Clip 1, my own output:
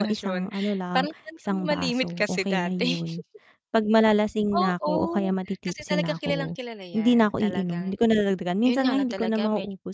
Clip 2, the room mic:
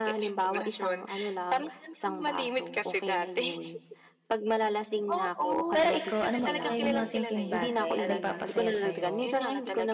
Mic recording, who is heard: both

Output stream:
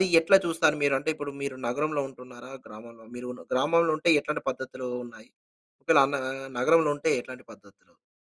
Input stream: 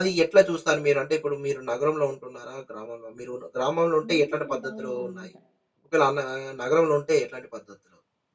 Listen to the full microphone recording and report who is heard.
both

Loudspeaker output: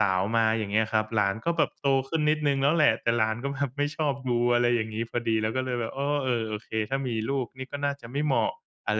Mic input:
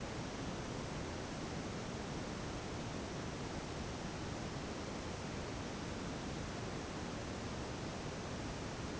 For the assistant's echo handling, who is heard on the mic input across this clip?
neither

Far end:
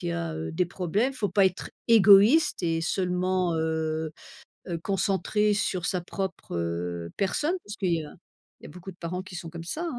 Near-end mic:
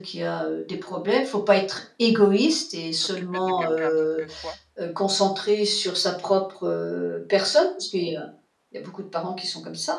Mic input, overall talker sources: both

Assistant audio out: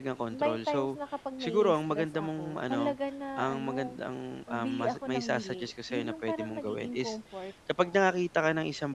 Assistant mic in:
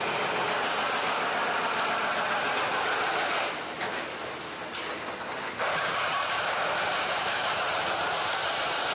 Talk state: neither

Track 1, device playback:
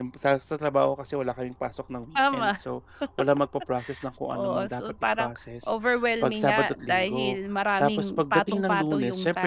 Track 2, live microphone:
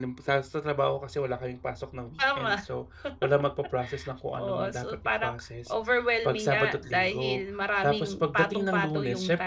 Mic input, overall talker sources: echo only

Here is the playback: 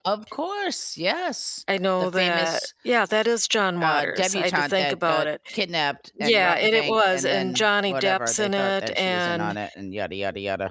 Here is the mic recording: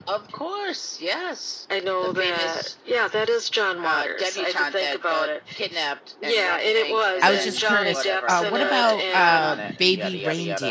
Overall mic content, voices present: both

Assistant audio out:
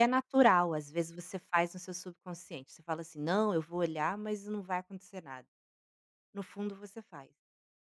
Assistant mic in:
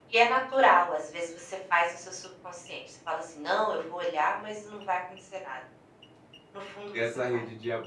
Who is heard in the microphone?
both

